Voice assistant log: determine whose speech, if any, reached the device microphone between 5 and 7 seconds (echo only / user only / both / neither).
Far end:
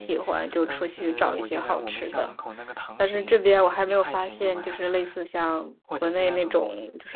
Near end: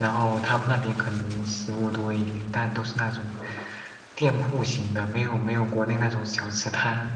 user only